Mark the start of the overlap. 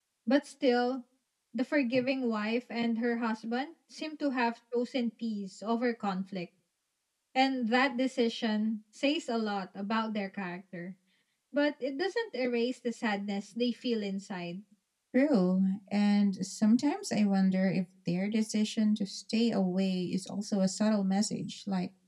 none

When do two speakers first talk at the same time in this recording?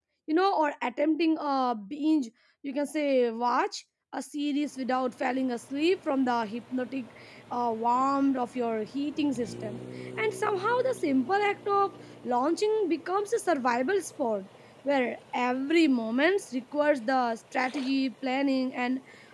none

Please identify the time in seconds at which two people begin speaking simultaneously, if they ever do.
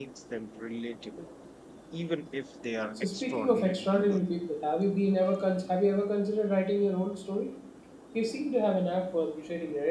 3 s

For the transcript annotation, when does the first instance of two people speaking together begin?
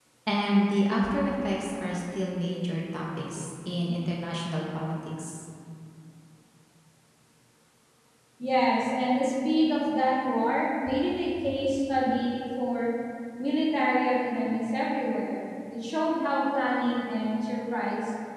none

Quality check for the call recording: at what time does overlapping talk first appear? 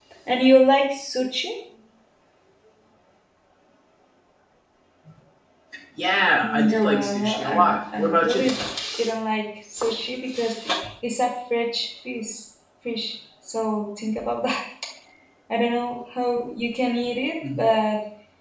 6 s

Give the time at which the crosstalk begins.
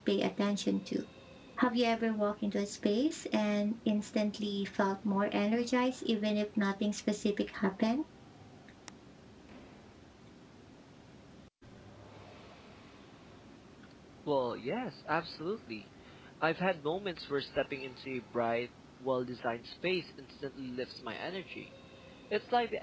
none

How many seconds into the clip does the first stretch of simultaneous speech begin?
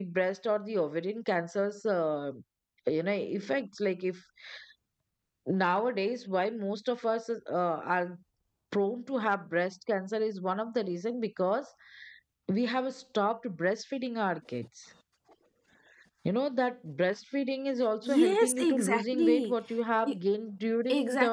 18 s

